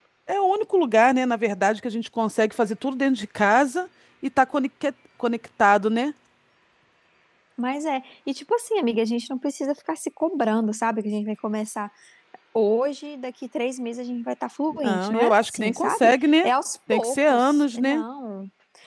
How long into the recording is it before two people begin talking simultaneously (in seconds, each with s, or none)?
14.7 s